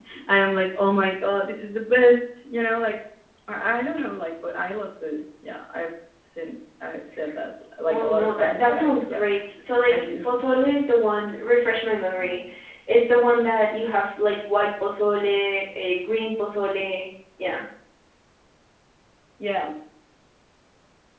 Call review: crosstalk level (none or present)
present